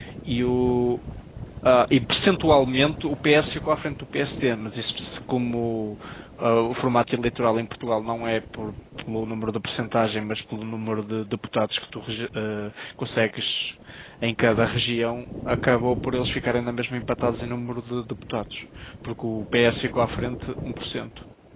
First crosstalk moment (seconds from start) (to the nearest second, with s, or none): none